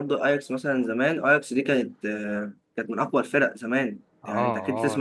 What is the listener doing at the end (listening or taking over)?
taking over